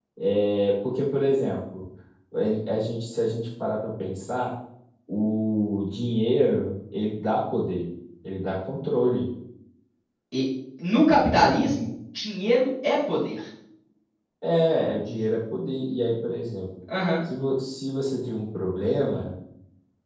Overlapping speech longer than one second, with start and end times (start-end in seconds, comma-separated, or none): none